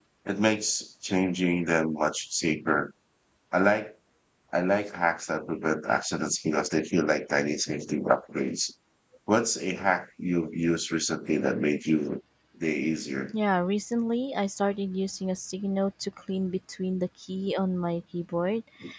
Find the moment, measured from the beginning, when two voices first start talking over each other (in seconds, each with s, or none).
none